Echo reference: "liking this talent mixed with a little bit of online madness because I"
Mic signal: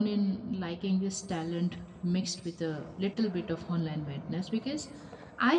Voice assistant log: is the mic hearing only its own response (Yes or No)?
Yes